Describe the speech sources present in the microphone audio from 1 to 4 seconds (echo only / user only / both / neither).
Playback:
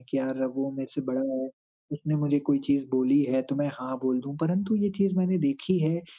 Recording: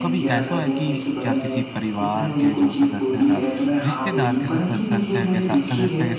both